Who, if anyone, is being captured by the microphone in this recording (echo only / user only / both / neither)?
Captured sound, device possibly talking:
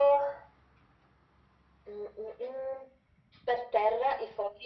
echo only